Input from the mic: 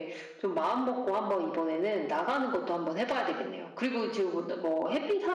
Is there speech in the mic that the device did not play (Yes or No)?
No